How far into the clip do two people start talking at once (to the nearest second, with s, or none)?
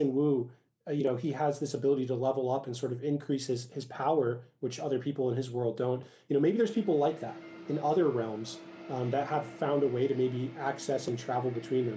none